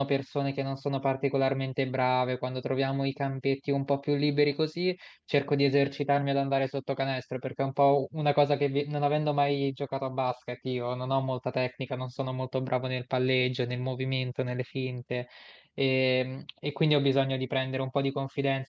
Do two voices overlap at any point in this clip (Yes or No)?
No